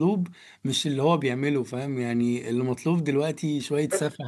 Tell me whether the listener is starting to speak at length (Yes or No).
No